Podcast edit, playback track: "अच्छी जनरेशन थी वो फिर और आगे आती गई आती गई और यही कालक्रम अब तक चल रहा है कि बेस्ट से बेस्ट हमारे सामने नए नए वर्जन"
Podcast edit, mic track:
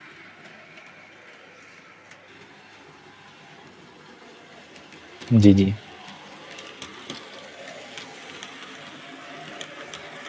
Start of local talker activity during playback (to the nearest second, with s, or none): 5 s